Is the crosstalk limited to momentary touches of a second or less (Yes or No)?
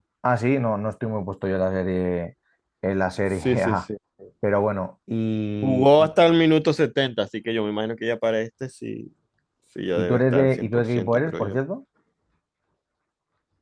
No